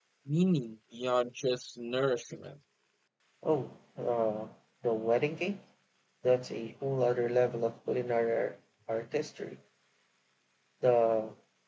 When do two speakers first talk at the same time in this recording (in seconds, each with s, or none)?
none